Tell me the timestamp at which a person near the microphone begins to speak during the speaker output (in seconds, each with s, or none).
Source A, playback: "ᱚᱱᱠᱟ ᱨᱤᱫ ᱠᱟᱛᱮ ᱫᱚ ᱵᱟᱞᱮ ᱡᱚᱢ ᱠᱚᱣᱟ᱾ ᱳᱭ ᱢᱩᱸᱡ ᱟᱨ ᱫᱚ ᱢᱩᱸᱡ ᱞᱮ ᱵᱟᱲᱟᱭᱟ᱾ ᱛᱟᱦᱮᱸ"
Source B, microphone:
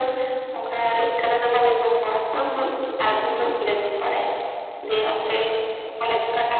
none